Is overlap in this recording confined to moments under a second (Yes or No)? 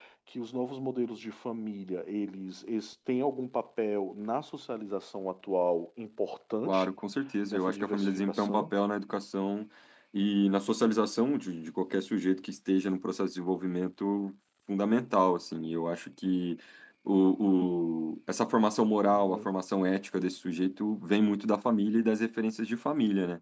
No